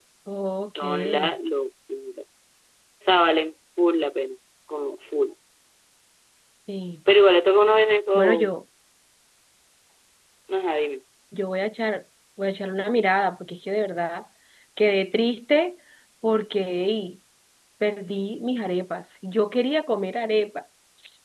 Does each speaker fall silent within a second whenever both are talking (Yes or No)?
Yes